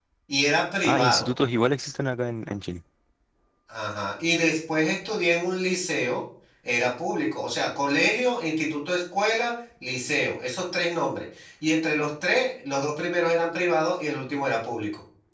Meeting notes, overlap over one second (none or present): none